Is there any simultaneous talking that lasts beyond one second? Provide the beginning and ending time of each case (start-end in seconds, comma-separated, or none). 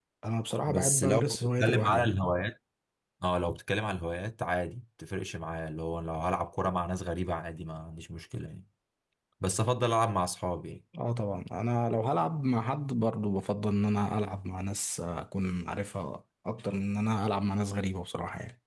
0.7-2.1